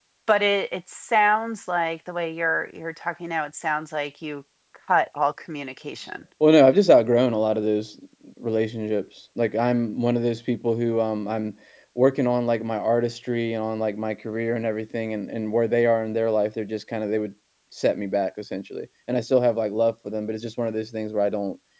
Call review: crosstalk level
none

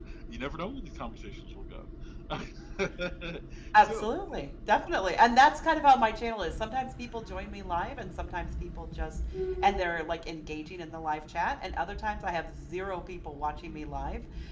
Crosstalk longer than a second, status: none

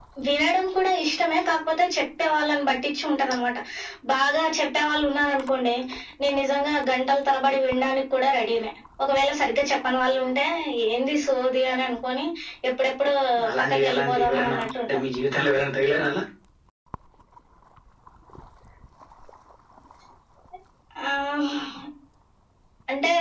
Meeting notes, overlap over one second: present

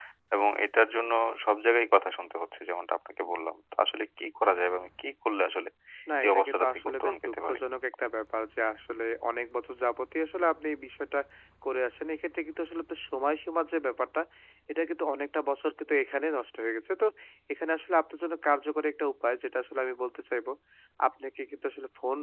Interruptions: present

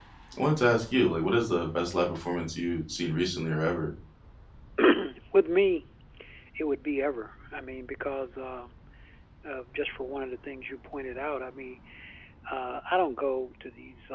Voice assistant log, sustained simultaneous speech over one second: none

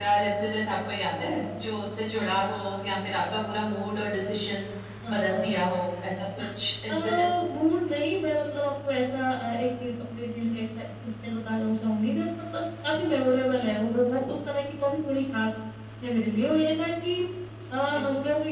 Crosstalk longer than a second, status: none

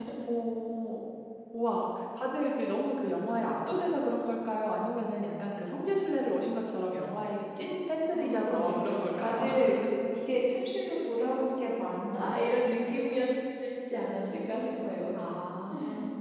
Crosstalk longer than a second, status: present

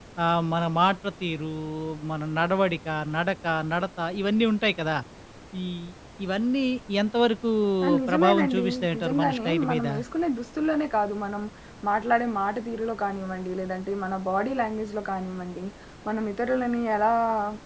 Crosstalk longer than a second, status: present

